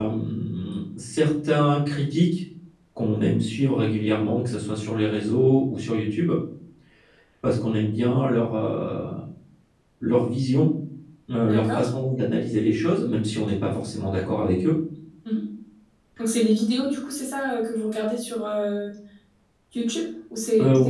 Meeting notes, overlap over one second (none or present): none